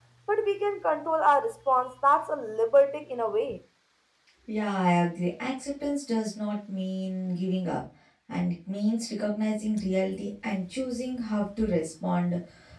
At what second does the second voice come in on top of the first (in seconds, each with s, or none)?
none